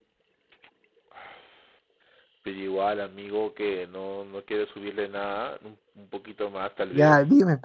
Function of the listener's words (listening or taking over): taking over